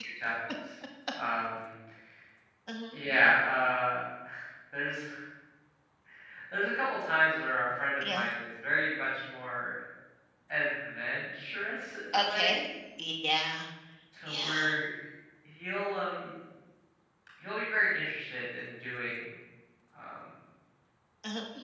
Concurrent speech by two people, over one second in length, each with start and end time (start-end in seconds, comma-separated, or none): none